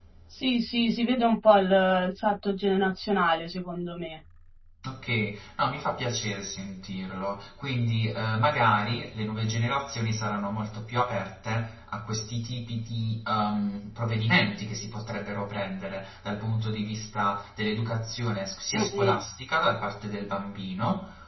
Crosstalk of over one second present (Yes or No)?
No